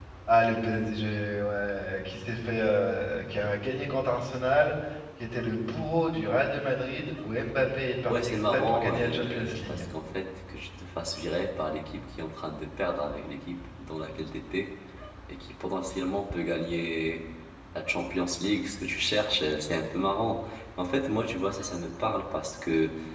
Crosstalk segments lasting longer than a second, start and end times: 8.1-9.8

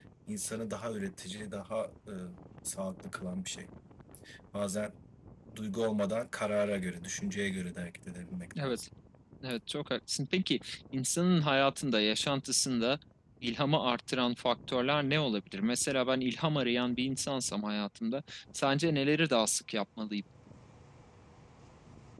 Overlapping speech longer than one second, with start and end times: none

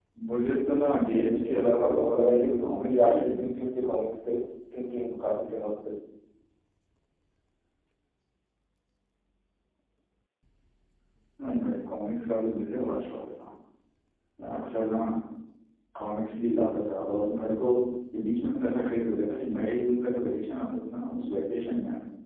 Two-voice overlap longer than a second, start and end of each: 1.1-3.5

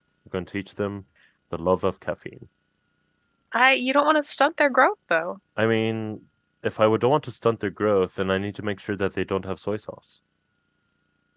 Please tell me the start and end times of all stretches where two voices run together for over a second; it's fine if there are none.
none

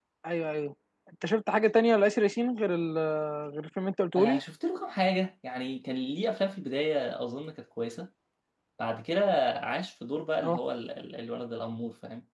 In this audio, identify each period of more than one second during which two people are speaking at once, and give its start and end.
none

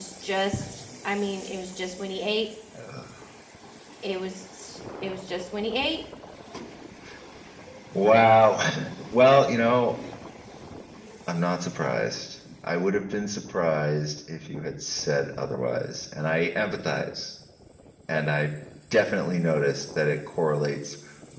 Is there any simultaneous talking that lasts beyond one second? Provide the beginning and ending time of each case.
none

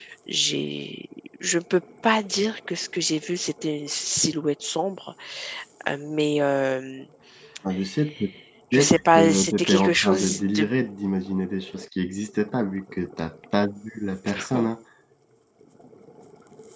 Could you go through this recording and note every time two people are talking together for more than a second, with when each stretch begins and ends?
8.7-10.7

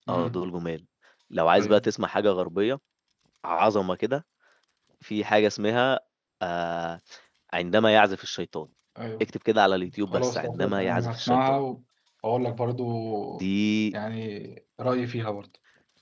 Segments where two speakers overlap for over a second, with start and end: 10.1-11.6

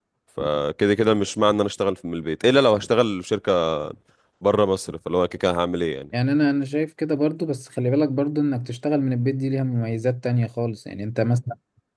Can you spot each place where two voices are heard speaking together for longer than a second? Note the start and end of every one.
none

